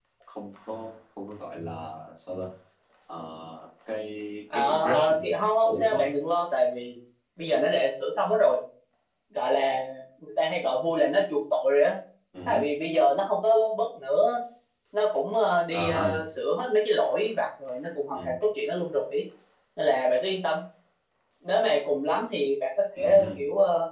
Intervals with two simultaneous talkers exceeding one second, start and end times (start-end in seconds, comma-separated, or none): 4.5-6.1